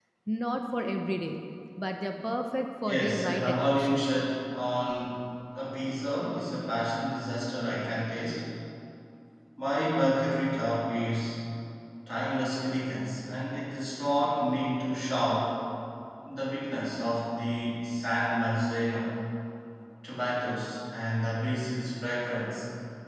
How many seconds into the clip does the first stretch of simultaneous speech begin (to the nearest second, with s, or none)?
3 s